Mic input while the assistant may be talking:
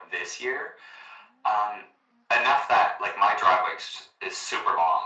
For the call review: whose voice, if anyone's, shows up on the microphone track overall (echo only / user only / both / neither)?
echo only